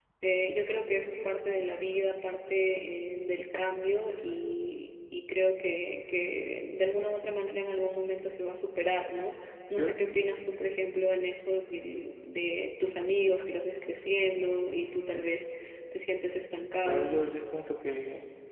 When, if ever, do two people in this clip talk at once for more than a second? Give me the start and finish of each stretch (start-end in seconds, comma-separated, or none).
none